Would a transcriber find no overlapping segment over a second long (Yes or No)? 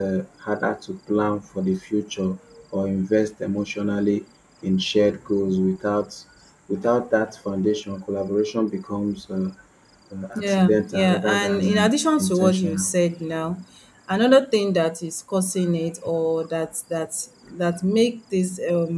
No